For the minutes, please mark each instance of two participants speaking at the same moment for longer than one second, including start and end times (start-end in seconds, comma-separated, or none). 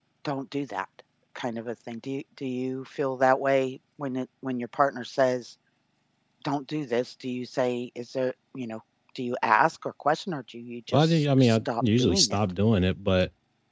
10.9-12.4